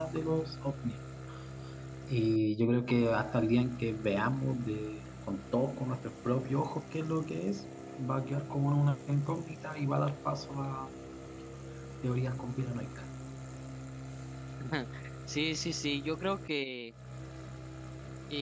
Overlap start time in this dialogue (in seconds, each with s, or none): none